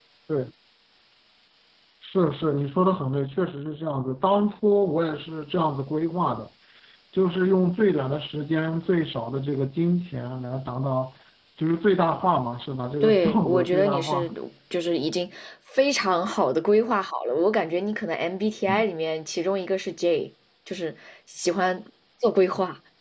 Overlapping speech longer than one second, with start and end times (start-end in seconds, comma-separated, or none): 13.0-14.3